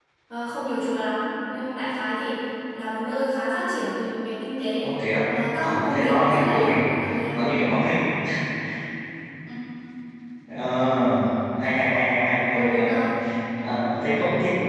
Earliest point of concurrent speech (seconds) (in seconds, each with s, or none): 5.6 s